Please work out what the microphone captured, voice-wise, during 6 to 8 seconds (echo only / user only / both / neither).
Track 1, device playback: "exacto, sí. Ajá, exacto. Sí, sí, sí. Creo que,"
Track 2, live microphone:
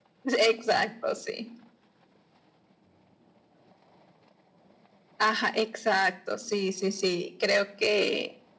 echo only